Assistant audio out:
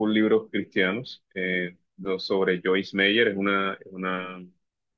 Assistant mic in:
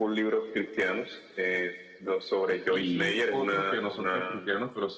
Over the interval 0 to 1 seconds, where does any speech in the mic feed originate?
echo only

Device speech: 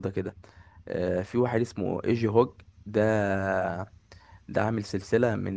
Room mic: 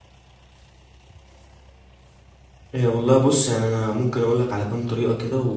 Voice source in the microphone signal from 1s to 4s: user only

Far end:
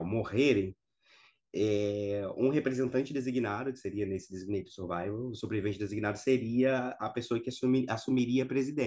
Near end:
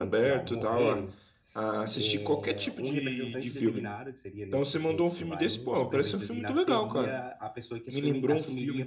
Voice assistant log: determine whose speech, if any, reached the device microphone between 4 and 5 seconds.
both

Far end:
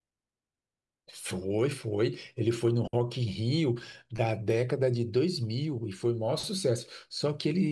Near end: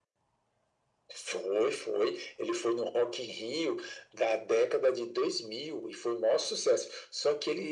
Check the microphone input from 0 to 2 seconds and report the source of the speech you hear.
echo only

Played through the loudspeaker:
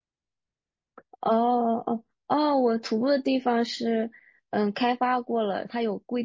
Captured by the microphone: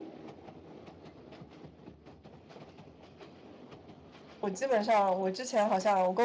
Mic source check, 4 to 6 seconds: user only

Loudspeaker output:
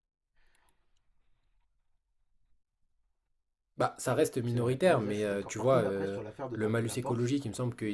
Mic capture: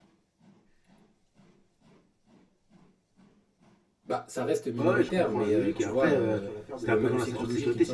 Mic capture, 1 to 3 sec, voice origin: neither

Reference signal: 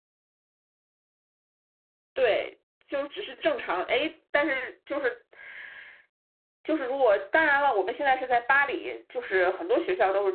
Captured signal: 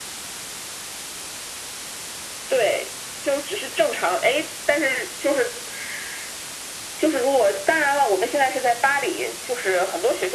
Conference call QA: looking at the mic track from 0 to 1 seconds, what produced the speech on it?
neither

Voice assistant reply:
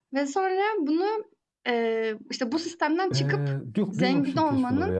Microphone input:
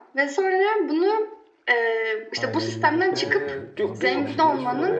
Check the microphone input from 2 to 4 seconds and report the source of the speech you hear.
both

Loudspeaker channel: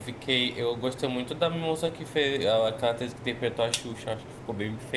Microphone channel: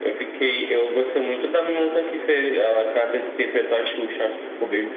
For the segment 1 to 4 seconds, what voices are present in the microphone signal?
echo only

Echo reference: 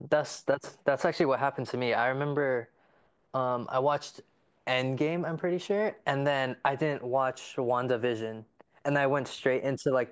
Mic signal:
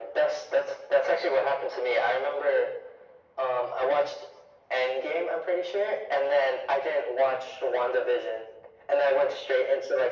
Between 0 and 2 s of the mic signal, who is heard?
echo only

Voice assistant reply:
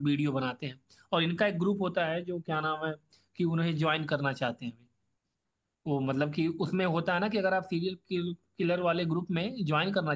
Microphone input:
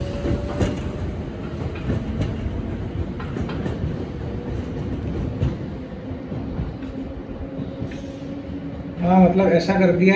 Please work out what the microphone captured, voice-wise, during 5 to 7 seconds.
neither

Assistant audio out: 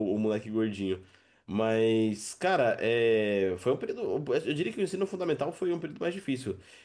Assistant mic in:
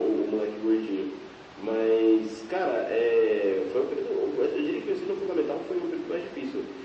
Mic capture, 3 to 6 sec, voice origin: echo only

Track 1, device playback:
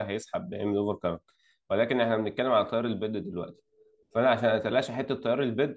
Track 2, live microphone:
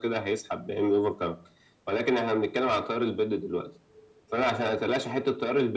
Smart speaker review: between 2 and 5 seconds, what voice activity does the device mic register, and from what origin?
echo only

